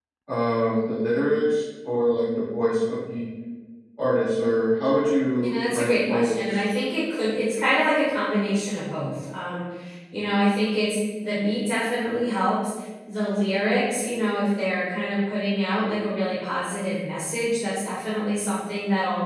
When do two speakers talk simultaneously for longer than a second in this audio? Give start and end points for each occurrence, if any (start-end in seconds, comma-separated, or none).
5.4-6.7